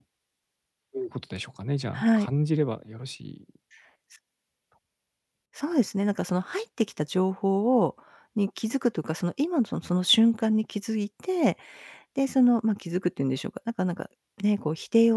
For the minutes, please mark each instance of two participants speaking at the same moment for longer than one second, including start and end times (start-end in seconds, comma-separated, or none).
none